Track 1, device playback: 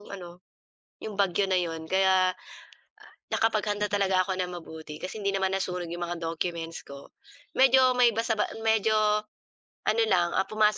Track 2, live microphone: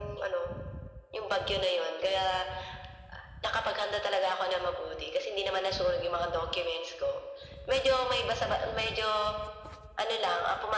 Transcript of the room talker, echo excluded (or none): none